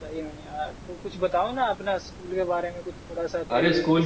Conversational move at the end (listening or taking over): taking over